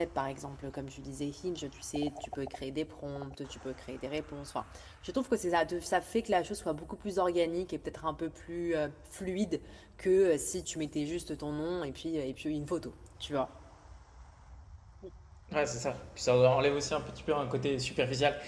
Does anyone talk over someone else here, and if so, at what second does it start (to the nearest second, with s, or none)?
none